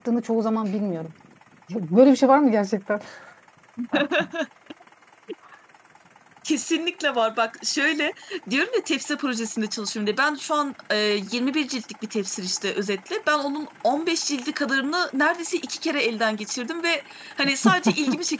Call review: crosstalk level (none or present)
none